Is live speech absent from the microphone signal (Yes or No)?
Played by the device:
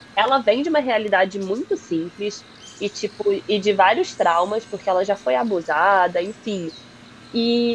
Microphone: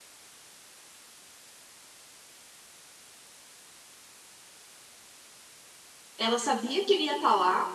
No